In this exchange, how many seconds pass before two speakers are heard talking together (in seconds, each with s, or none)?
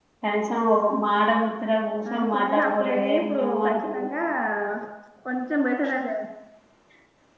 2.0 s